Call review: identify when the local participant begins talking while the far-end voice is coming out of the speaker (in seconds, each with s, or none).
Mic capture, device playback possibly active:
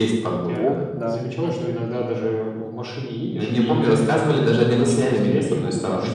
0.5 s